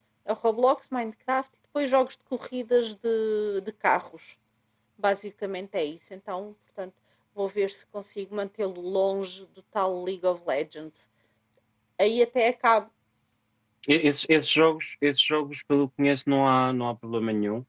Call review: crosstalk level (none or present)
none